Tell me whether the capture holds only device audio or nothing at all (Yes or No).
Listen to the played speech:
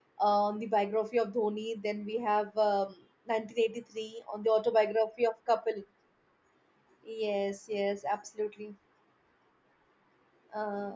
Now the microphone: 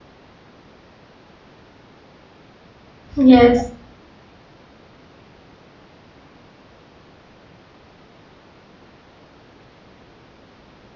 No